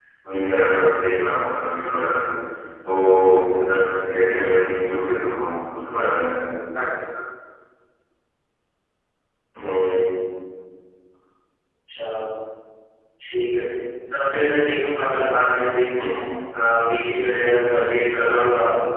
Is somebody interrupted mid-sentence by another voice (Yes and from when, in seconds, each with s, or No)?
No